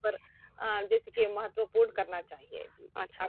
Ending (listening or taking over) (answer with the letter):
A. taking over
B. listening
A